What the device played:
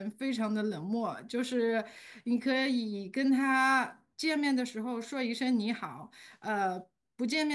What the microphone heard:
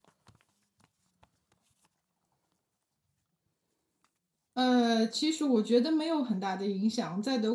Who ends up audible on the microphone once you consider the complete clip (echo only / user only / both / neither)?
user only